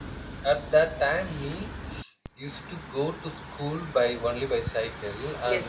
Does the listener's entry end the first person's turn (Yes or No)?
No